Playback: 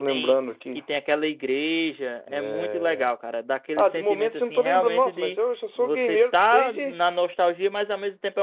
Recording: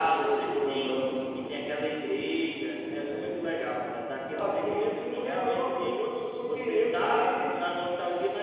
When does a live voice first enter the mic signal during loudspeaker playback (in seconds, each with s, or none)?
none